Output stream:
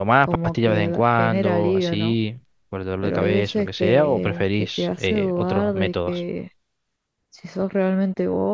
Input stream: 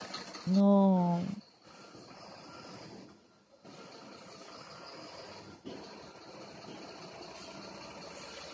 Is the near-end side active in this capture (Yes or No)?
Yes